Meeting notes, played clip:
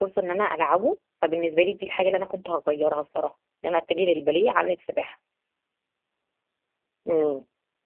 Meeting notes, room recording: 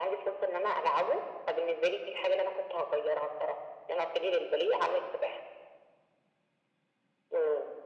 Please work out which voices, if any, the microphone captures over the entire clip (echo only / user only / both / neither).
echo only